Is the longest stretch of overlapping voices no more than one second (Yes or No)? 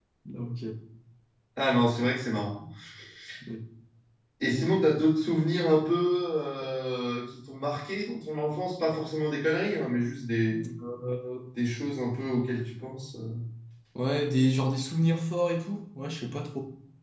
Yes